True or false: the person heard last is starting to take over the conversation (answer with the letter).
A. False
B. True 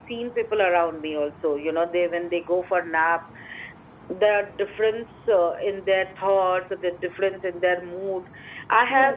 B